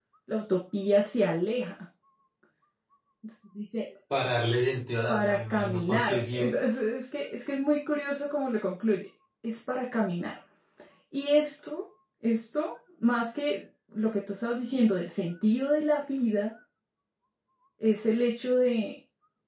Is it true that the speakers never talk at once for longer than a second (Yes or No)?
No